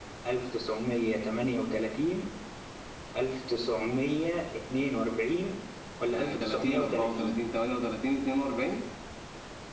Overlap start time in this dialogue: 6 s

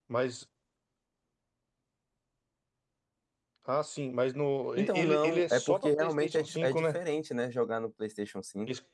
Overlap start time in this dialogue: 5 s

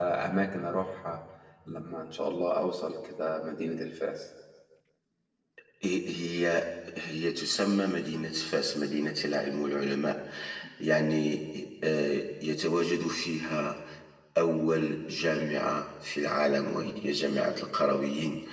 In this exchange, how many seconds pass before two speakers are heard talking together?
none

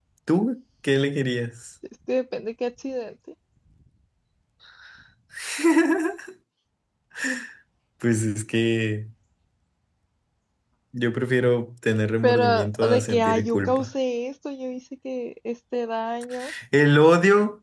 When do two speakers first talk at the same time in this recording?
12 s

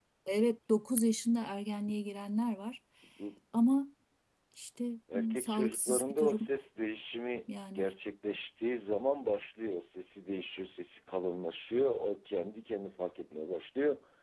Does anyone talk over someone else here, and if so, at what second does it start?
5 s

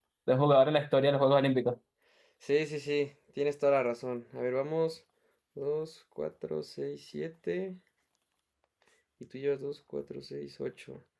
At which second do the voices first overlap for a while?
none

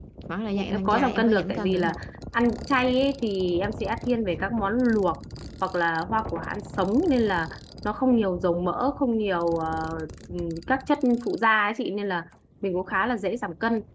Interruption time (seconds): 1 s

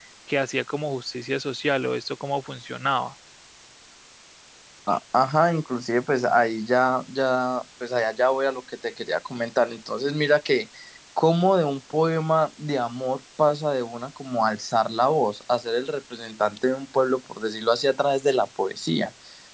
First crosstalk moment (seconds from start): none

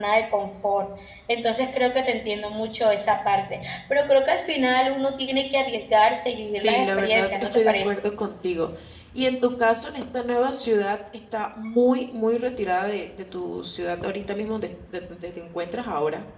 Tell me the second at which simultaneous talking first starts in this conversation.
7 s

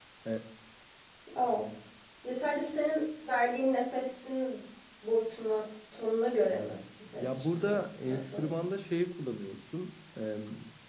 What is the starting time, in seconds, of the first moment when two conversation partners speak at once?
7 s

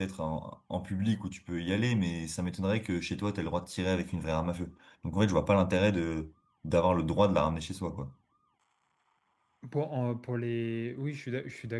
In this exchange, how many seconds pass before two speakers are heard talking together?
none

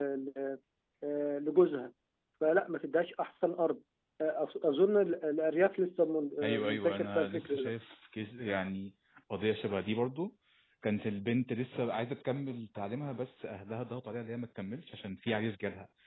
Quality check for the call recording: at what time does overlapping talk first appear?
6 s

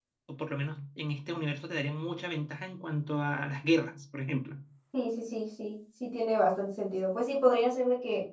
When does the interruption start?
none

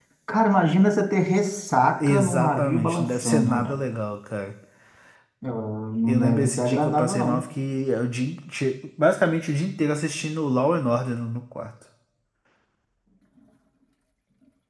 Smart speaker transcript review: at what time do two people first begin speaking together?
2 s

